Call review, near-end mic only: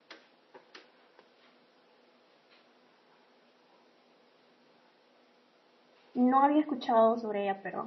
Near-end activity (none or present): present